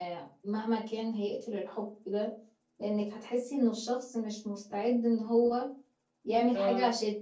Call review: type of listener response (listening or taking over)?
listening